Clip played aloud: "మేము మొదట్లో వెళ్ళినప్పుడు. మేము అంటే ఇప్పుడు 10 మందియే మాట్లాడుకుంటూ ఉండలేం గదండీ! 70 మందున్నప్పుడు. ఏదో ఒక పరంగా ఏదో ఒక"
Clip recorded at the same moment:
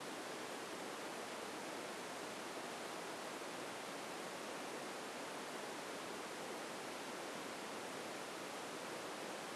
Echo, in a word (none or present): none